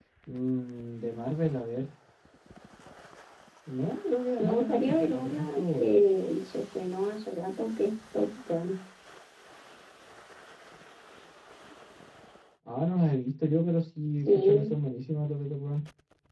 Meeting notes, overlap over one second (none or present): present